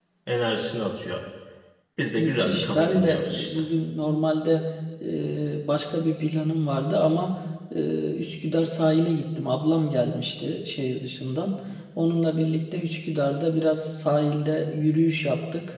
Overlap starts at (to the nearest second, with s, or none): 2 s